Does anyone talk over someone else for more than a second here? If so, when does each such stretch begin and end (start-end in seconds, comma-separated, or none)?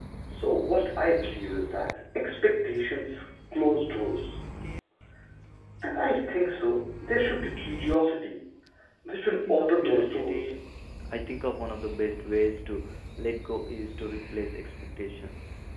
9.2-10.5